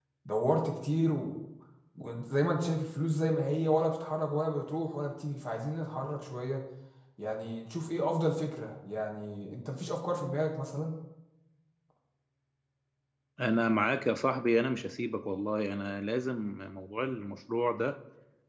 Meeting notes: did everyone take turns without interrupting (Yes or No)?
Yes